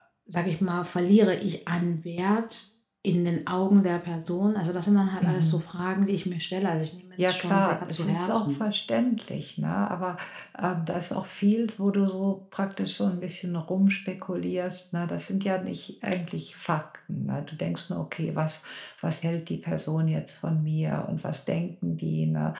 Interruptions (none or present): present